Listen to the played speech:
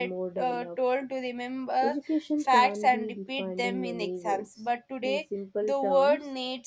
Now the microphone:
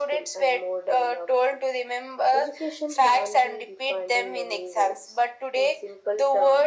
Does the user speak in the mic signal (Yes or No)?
No